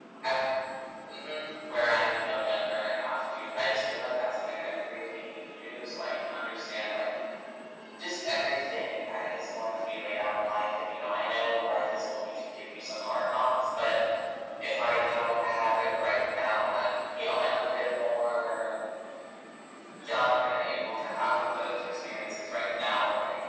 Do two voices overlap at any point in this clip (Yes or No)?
No